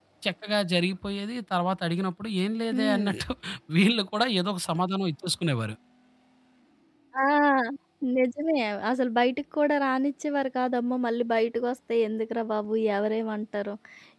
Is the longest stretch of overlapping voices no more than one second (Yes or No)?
Yes